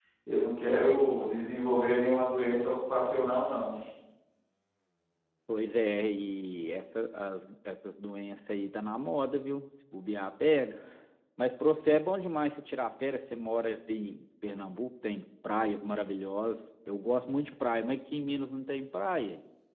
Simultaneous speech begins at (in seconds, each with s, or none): none